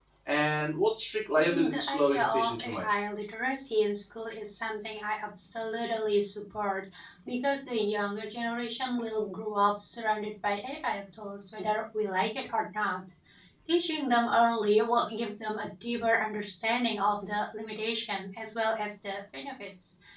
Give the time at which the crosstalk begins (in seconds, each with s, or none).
1.4 s